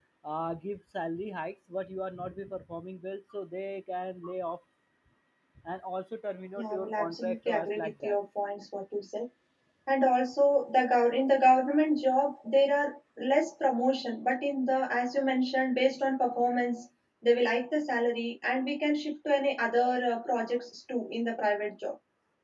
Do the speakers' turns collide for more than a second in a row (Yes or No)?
Yes